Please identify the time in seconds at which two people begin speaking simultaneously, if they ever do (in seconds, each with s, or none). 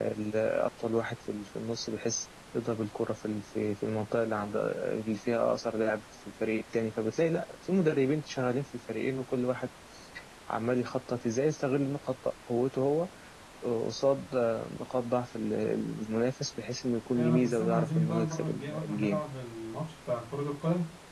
17.2 s